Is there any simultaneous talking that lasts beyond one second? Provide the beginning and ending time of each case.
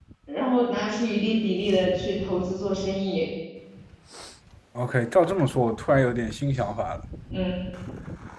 none

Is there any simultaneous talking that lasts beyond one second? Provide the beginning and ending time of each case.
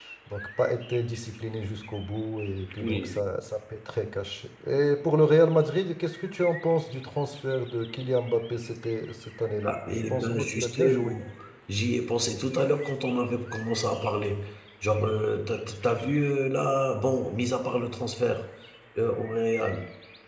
9.6-11.2

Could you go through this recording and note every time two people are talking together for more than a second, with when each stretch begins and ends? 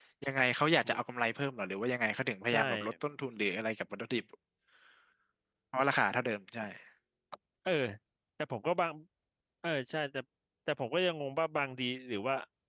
none

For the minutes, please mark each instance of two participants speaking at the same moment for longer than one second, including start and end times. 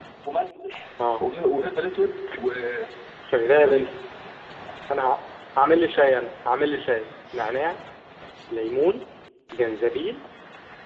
none

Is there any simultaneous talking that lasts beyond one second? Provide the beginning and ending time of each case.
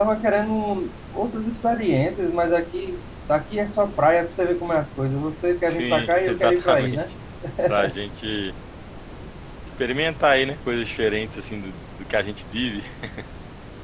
5.7-7.0

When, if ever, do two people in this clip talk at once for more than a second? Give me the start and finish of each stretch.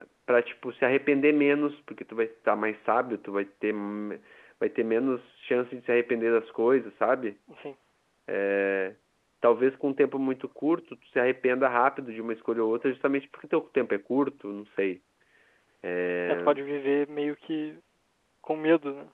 none

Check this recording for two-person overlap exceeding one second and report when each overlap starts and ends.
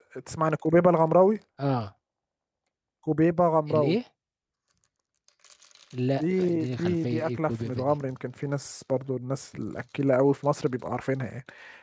6.2-8.0

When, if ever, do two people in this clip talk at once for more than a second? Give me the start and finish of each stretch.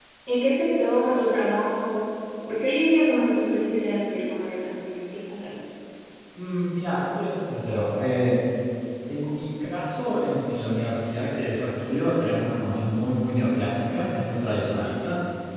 none

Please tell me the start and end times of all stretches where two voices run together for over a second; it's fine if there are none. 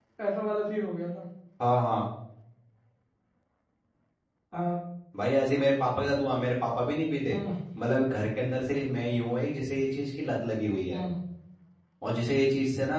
none

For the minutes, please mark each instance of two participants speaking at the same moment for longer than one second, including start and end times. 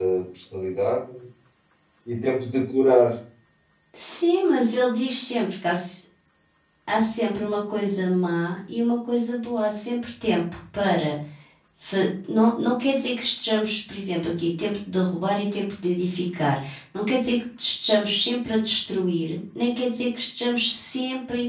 none

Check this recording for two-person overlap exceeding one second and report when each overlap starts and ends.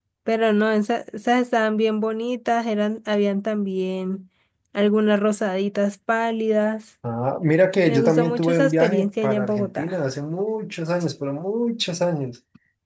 7.9-10.0

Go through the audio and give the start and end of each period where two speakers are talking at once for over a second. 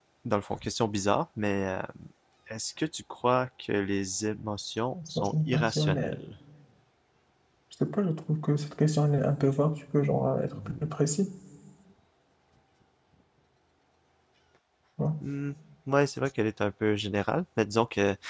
4.9-6.2

